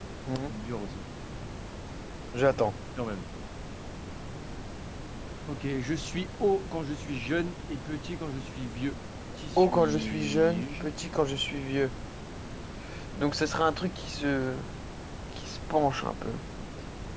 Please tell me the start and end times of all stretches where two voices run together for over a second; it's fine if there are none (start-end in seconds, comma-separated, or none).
9.6-10.8